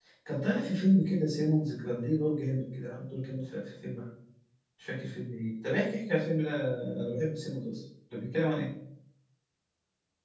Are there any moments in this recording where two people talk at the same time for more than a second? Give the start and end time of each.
none

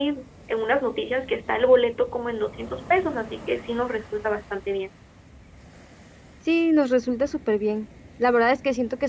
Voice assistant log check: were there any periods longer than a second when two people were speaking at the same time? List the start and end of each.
none

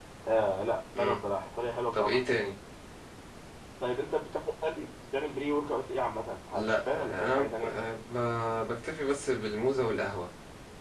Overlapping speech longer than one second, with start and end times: 6.5-7.8

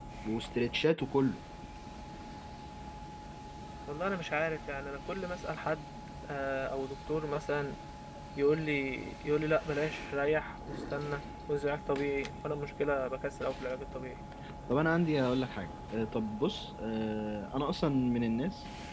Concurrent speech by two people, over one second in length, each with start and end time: none

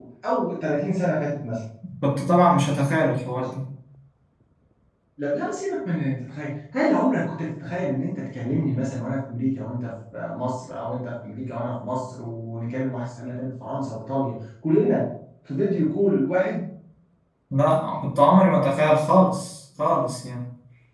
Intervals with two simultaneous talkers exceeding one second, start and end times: none

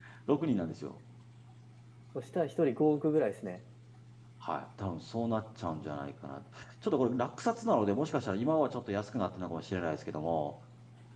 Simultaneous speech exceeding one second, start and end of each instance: none

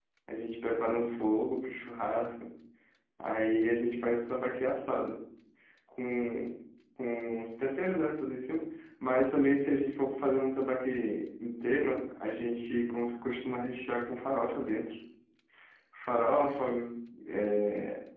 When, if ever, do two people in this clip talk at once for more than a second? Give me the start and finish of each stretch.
none

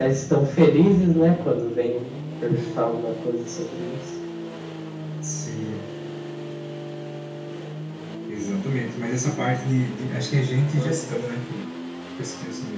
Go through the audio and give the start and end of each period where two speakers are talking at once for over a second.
none

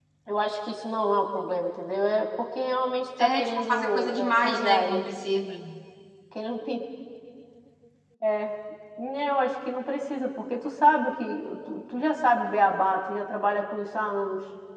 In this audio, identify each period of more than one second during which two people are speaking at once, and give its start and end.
3.2-5.1

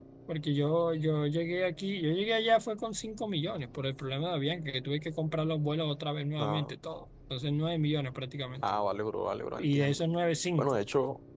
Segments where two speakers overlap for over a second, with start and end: none

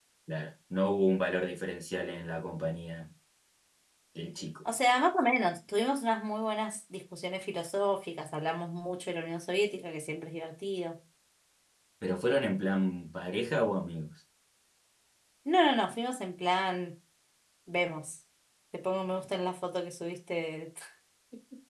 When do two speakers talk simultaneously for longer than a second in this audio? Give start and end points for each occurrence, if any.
none

